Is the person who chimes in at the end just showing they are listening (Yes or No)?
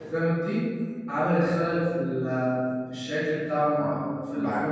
No